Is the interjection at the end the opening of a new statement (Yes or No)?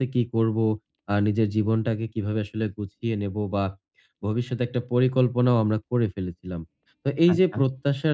No